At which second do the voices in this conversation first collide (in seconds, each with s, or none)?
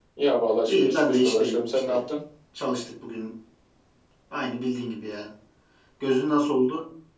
0.7 s